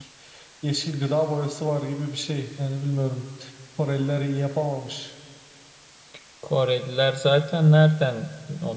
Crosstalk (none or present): none